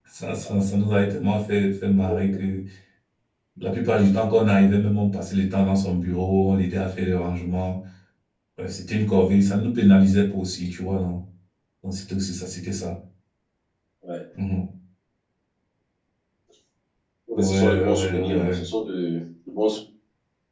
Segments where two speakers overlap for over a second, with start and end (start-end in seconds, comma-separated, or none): 17.4-18.6